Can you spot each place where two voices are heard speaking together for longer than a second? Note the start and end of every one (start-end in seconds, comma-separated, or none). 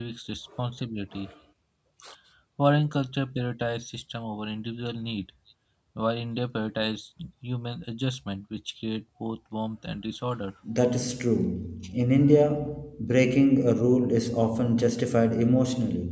none